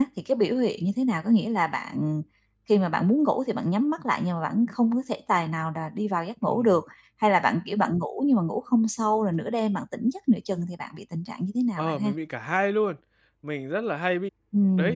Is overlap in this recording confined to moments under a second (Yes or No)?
Yes